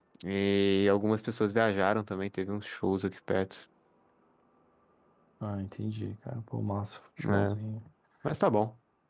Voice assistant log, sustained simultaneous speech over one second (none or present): none